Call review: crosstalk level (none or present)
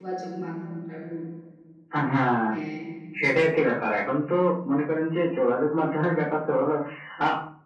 none